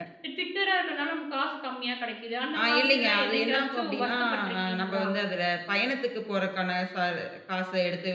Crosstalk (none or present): present